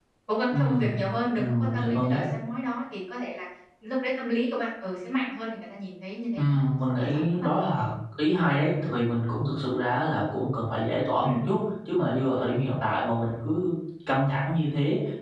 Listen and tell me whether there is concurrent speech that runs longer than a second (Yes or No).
Yes